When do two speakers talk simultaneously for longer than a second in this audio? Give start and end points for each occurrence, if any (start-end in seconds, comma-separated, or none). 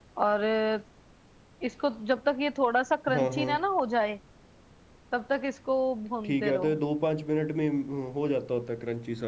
none